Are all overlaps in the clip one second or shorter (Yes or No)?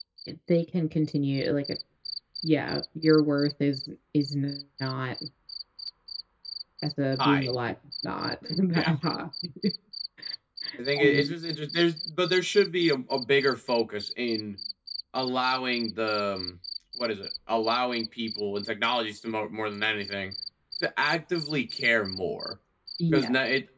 Yes